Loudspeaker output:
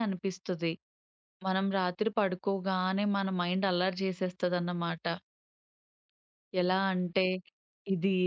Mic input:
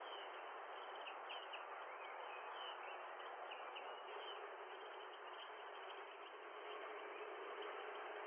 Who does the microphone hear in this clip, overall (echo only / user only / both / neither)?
neither